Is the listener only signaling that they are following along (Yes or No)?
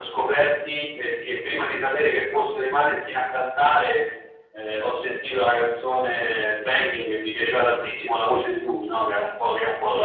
No